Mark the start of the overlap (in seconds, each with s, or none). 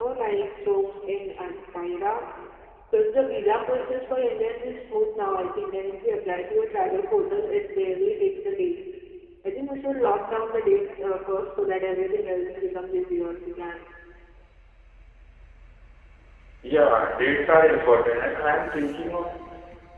none